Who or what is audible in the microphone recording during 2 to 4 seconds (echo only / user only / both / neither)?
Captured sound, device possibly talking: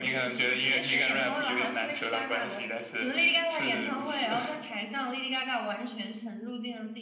echo only